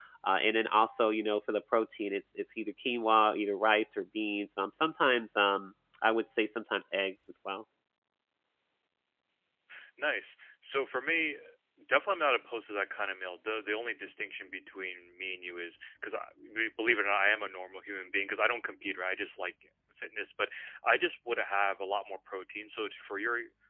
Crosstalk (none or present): none